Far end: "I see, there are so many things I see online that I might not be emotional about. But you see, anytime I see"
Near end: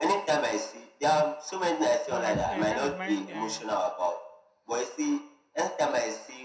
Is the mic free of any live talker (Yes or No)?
No